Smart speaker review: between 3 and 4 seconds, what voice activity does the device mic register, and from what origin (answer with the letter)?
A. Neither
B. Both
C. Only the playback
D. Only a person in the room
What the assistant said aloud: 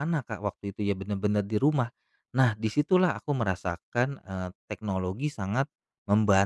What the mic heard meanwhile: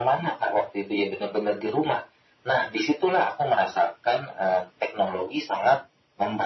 C